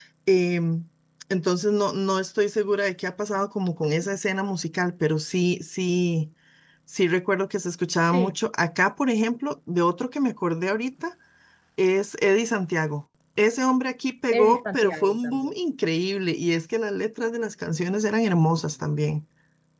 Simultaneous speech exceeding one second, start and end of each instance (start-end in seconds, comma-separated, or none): 14.3-15.5